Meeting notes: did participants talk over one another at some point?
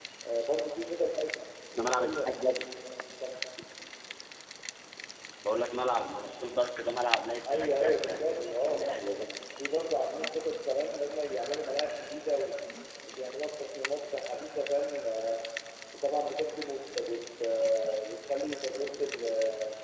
Yes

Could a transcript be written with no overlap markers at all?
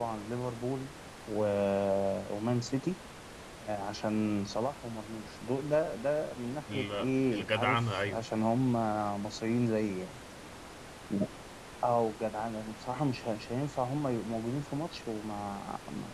No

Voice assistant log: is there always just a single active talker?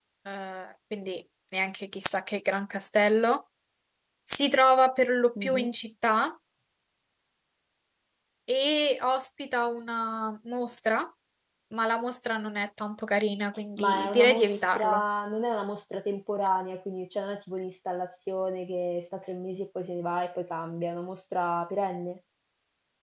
No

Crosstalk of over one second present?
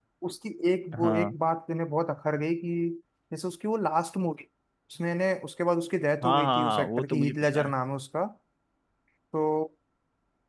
Yes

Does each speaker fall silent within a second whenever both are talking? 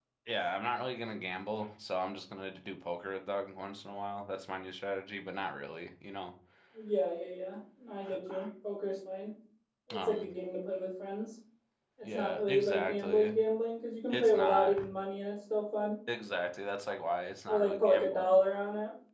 No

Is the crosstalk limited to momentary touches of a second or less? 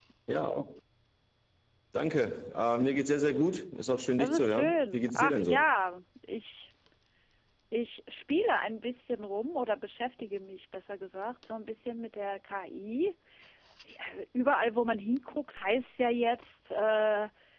No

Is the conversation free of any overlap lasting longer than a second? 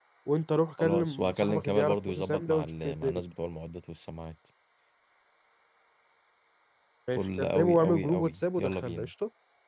No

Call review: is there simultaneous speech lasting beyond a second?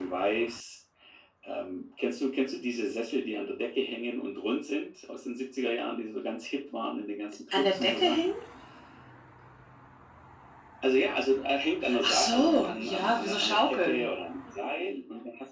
Yes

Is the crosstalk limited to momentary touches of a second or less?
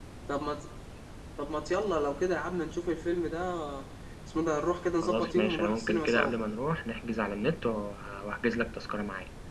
No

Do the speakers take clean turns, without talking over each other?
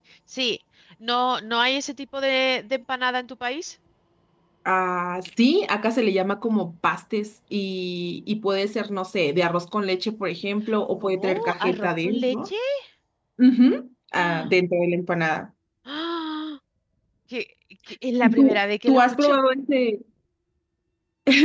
No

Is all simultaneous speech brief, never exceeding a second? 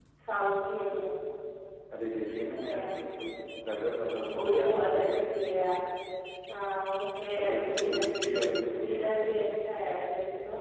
No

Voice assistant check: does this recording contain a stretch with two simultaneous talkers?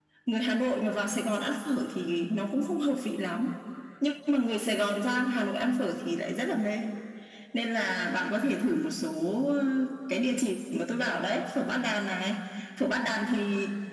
No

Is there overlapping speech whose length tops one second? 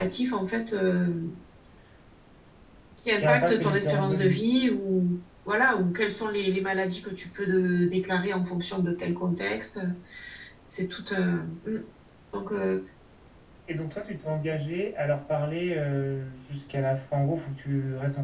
Yes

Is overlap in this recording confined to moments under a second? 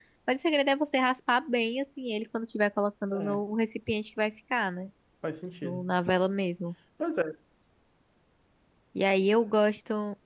Yes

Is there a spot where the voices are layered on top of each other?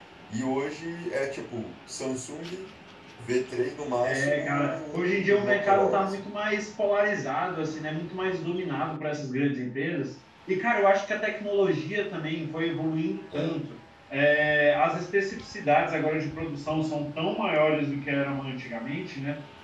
Yes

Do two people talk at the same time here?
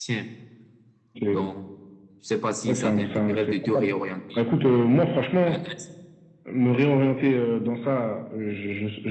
Yes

